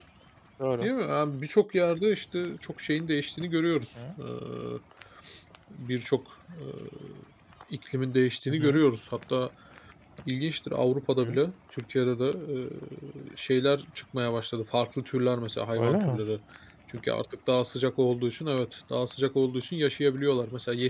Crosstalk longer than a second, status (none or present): none